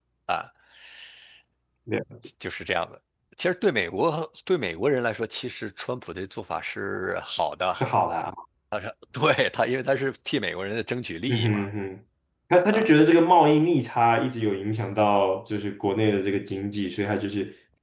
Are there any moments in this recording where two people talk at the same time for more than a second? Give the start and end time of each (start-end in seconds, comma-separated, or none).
none